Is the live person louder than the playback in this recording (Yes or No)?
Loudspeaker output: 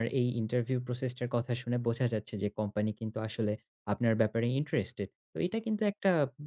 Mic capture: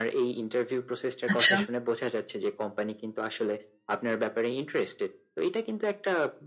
Yes